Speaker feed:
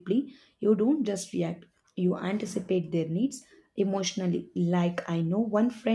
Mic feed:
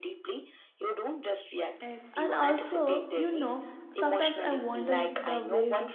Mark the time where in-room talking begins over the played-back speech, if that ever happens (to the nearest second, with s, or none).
2 s